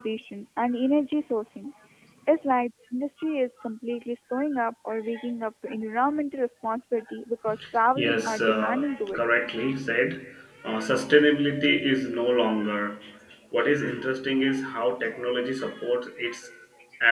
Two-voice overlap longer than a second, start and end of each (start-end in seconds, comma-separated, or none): 8.0-9.2